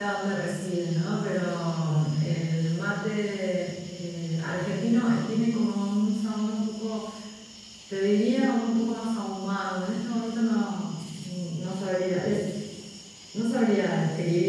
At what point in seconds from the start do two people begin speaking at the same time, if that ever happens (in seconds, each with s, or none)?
none